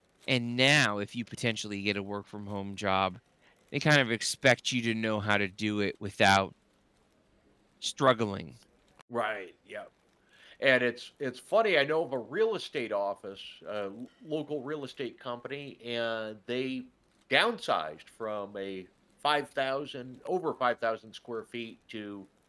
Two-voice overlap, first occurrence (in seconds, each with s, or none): none